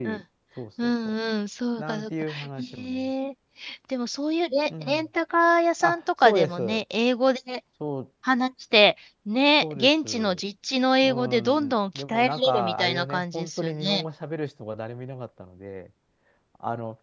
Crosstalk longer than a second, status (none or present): present